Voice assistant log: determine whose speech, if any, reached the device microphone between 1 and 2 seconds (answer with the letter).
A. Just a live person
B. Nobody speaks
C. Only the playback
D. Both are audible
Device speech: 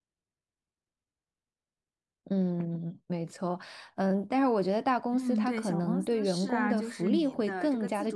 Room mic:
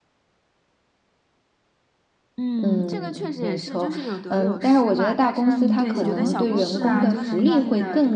B